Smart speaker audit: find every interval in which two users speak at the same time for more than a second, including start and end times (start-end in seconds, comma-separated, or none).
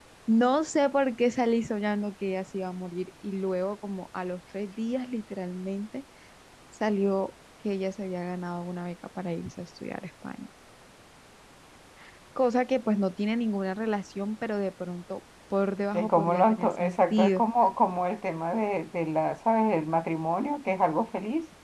15.9-17.4